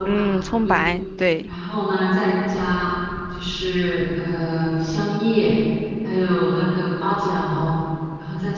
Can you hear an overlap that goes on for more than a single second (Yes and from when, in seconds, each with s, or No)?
No